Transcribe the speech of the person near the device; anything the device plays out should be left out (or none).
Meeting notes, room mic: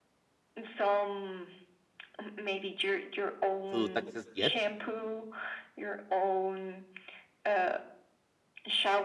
to do taxes yet